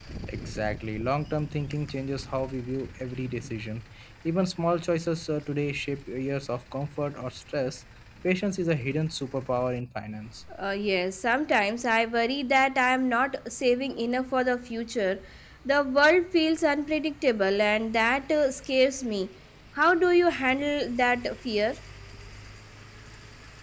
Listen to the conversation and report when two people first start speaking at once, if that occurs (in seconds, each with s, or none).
none